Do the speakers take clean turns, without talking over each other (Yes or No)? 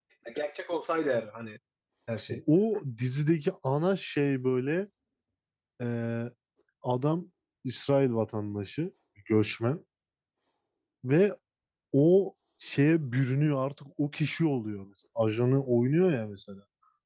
Yes